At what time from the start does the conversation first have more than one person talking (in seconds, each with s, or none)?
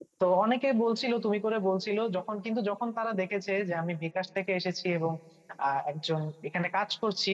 none